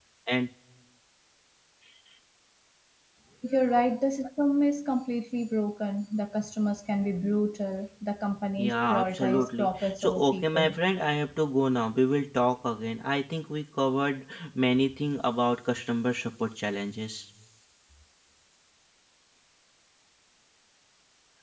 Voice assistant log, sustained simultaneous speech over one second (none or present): present